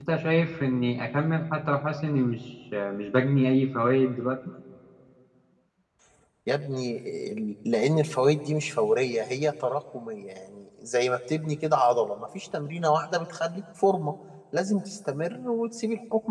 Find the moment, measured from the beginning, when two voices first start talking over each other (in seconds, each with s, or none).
none